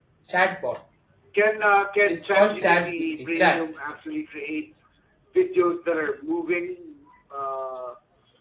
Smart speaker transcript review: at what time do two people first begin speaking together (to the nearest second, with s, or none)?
2 s